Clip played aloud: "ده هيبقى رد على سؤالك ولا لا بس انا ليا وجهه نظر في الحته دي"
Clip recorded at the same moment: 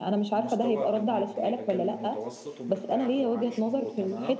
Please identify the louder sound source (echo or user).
echo